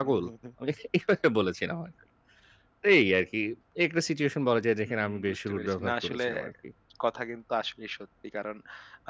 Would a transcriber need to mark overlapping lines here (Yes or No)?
Yes